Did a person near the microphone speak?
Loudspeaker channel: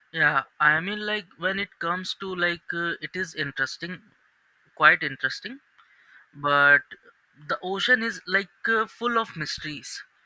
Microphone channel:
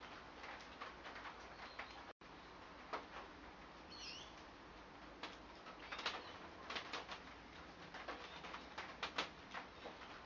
No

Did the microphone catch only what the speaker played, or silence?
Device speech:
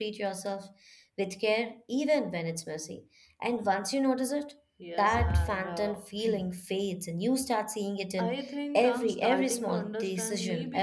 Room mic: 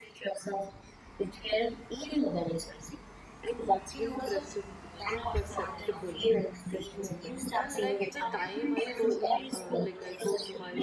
No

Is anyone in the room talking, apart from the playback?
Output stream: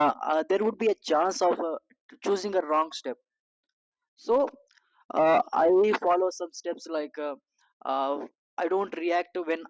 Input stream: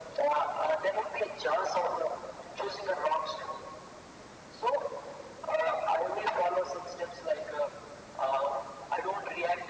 No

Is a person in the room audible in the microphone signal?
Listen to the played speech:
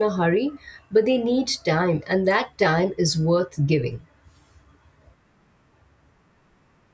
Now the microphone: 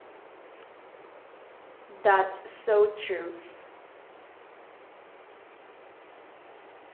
Yes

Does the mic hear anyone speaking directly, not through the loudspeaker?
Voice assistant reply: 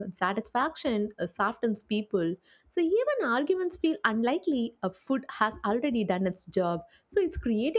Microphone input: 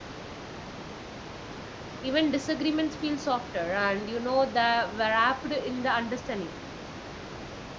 Yes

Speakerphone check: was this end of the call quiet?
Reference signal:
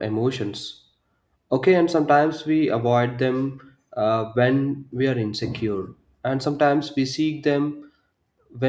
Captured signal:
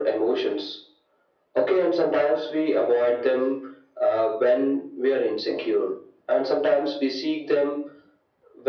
Yes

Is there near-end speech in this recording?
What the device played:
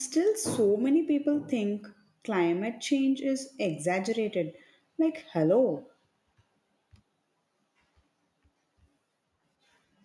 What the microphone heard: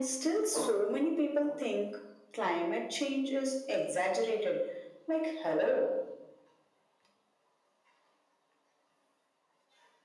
No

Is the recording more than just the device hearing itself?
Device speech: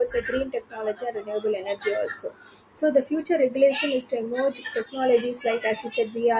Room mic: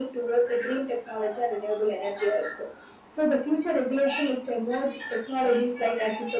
No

